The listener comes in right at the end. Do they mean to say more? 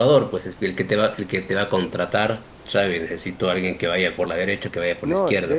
Yes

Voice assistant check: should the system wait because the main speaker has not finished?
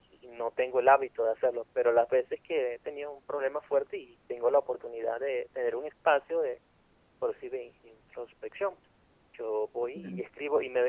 Yes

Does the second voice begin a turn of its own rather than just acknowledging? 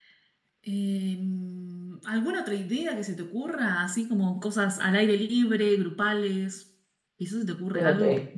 Yes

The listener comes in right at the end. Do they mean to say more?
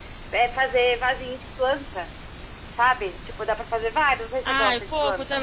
Yes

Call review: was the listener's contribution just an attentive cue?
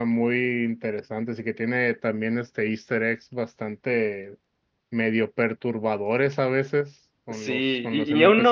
No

